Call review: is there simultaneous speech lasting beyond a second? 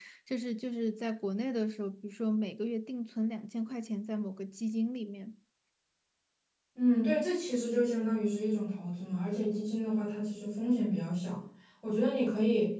No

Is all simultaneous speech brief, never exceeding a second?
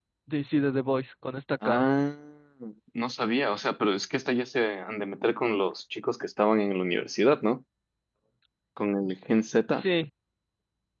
Yes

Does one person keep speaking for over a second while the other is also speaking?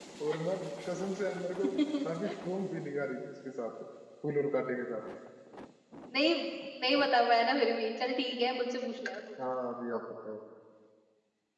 No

